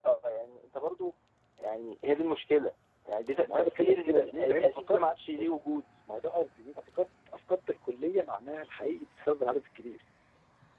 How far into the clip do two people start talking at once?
3.4 s

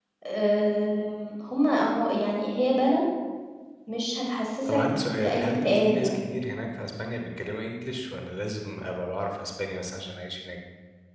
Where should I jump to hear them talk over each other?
4.7 s

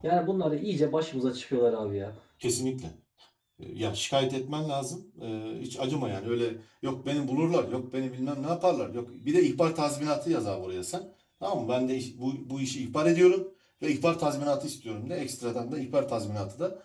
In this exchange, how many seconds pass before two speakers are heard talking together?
none

